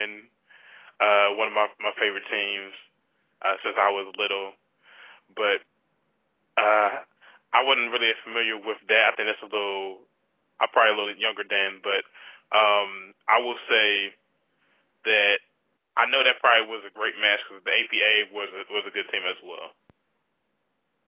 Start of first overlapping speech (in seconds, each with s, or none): none